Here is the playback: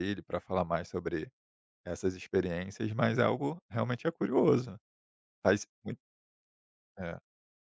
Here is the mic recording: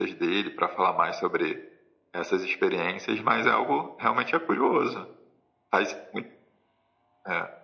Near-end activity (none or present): none